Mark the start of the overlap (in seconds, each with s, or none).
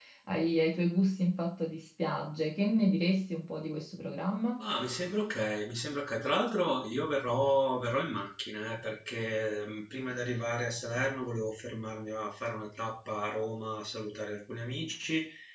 none